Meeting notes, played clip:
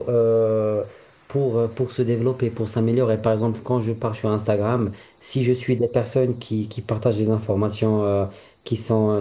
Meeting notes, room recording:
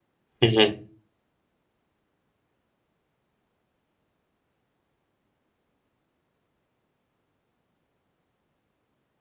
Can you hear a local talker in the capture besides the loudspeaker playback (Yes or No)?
Yes